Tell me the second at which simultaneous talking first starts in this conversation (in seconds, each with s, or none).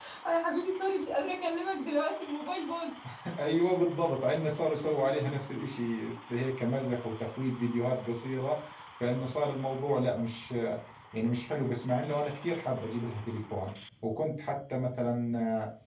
none